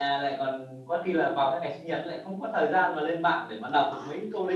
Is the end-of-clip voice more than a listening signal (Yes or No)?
Yes